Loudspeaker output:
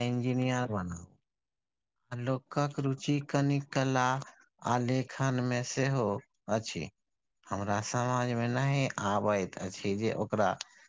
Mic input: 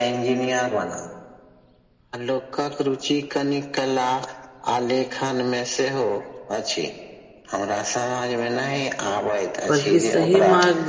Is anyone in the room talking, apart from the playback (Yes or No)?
Yes